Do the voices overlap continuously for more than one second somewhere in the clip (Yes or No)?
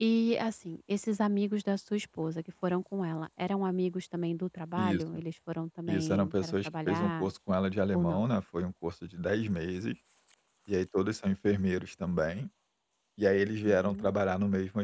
Yes